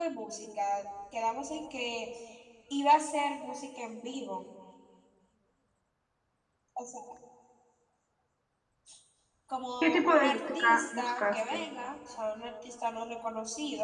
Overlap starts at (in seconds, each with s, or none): 9.8 s